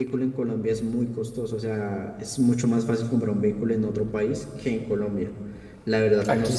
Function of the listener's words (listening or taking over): taking over